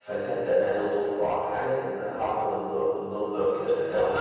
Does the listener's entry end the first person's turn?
Yes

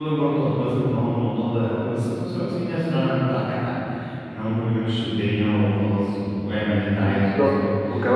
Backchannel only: No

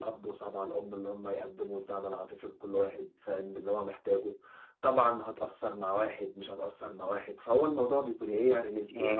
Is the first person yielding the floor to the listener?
Yes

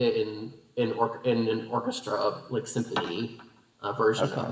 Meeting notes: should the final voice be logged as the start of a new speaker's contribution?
Yes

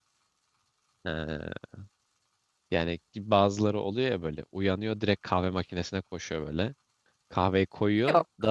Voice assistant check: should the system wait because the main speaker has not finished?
Yes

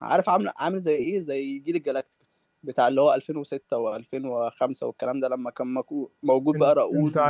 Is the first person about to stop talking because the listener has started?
Yes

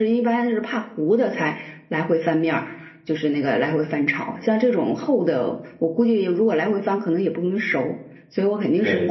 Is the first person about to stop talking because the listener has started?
No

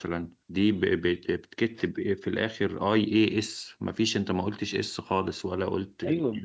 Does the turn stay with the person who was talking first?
No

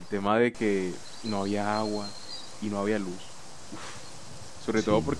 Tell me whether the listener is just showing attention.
Yes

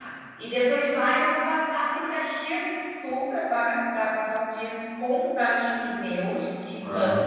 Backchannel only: Yes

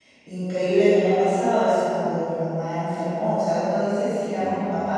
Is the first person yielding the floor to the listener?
No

